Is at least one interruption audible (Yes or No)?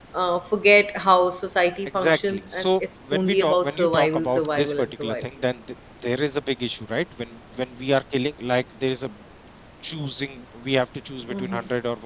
Yes